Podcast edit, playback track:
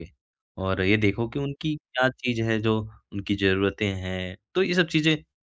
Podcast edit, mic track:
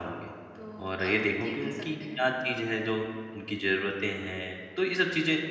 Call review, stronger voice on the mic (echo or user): echo